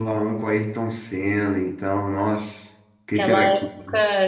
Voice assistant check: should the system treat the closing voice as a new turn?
Yes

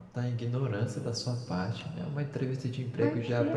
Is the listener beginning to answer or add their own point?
No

